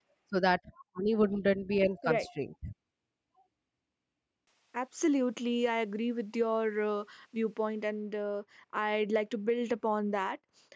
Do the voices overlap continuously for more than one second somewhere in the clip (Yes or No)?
No